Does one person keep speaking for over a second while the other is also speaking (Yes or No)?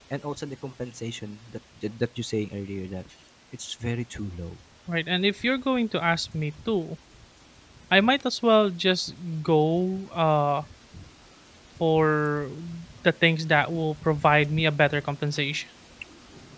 No